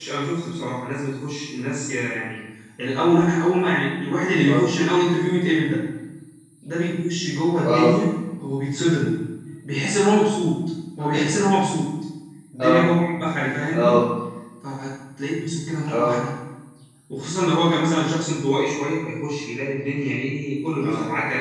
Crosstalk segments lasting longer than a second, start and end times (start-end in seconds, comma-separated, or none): none